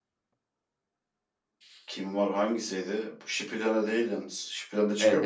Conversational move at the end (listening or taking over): taking over